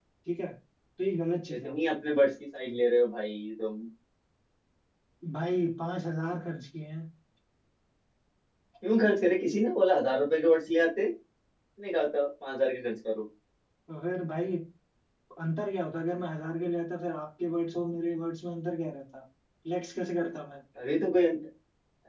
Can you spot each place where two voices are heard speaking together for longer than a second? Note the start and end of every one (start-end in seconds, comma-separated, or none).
none